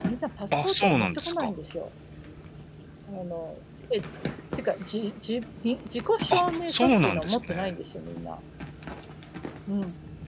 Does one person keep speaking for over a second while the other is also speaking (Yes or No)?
Yes